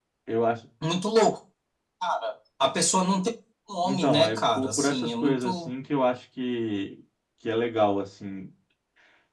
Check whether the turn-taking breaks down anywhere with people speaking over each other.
Yes, from 3.8 s

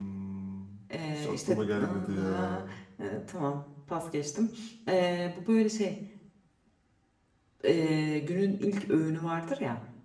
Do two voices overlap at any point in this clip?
Yes, from 1.2 s

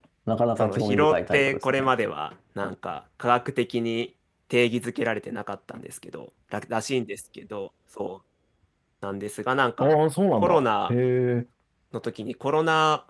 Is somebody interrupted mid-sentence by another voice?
Yes, from 0.6 s

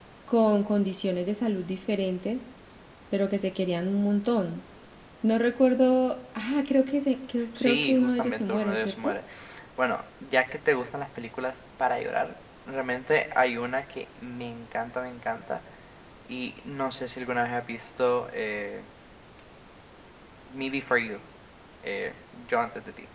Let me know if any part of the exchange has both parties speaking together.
Yes, from 7.5 s

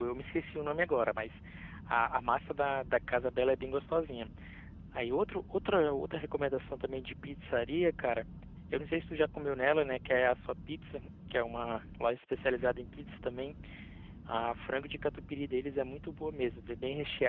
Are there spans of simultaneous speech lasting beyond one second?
No

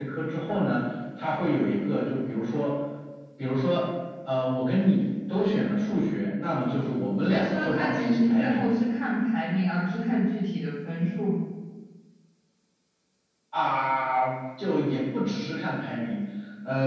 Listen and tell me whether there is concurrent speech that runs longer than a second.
Yes, from 7.2 s

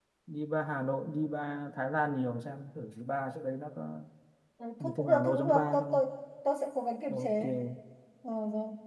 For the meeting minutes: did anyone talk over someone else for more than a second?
Yes, from 4.8 s

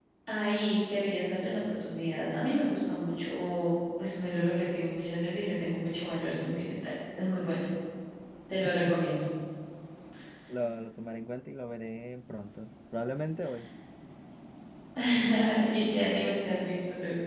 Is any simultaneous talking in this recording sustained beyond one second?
No

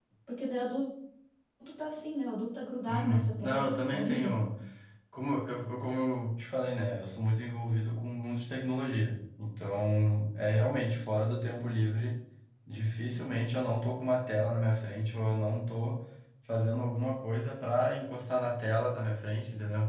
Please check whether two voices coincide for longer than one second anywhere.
Yes, from 2.9 s

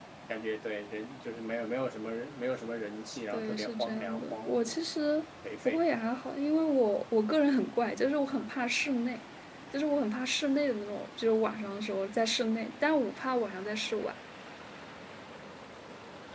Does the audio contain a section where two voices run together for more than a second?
Yes, from 3.3 s

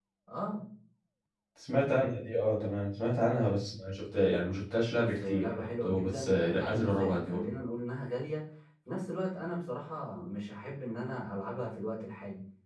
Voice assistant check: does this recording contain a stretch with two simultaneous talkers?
Yes, from 4.9 s

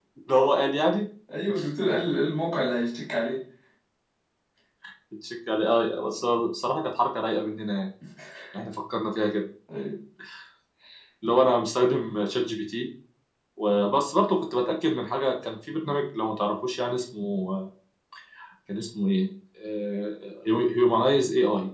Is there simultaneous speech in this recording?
No

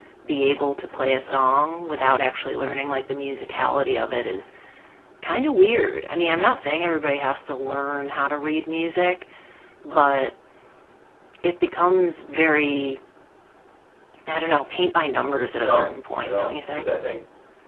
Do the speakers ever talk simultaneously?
Yes, from 15.6 s

